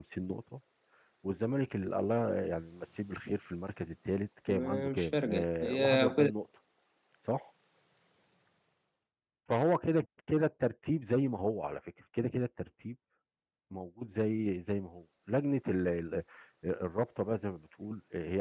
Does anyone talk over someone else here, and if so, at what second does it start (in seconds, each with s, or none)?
4.5 s